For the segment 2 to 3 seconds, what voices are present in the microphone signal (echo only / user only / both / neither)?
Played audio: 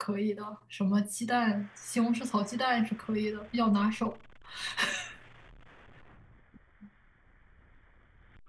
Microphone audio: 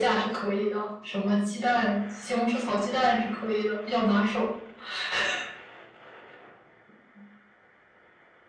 echo only